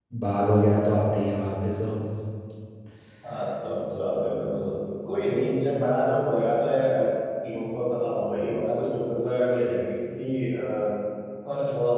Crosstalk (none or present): none